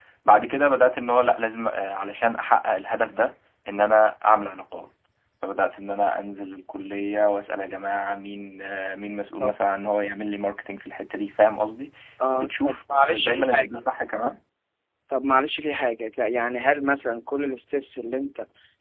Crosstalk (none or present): present